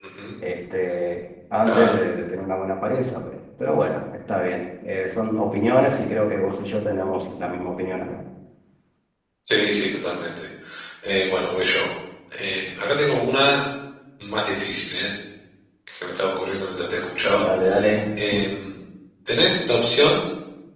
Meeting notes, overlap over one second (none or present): none